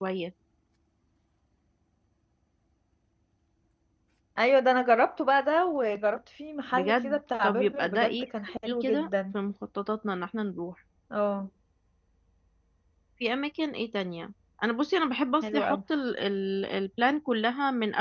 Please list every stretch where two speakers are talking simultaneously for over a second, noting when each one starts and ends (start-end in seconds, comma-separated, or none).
6.7-9.1